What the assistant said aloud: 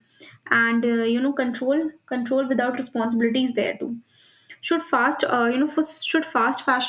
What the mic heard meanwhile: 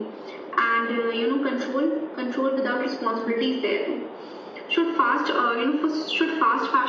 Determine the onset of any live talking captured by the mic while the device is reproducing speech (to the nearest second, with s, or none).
none